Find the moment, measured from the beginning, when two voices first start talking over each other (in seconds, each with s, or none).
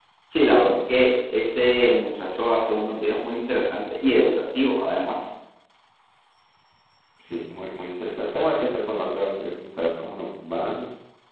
none